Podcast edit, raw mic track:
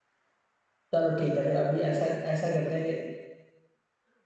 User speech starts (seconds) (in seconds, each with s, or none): 0.9 s